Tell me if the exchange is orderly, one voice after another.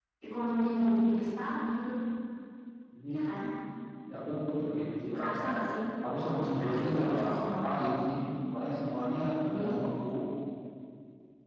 No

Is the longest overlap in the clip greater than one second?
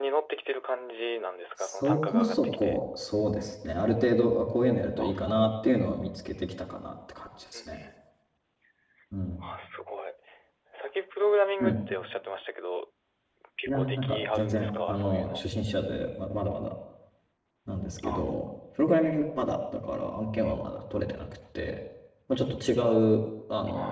Yes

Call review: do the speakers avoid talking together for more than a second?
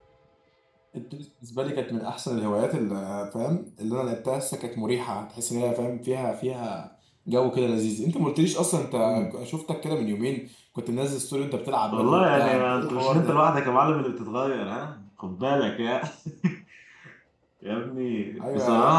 No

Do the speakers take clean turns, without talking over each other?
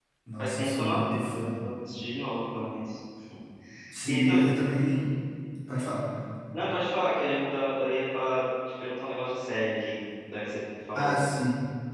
No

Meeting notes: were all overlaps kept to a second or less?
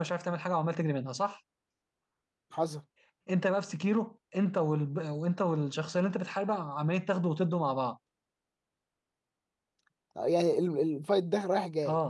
Yes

